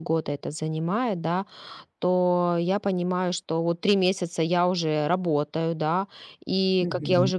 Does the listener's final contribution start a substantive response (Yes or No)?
No